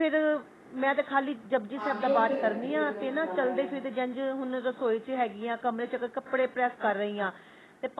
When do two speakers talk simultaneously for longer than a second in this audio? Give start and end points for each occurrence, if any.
1.8-3.5

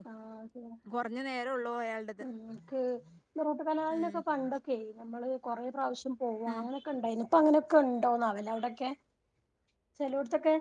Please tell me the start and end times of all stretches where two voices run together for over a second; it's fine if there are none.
none

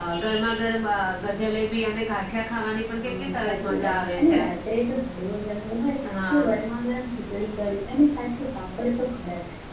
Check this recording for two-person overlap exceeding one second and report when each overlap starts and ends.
3.0-4.4

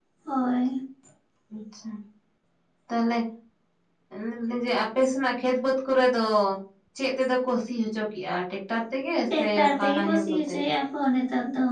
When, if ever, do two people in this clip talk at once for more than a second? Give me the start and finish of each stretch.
9.4-10.6

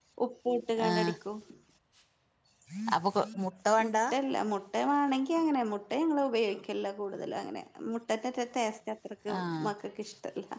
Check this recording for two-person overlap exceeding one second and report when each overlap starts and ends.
none

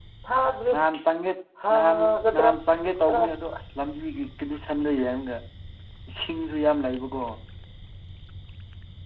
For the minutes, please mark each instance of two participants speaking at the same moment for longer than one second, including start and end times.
none

